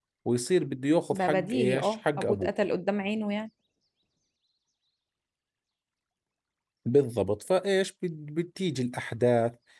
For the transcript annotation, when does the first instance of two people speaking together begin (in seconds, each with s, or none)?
1.1 s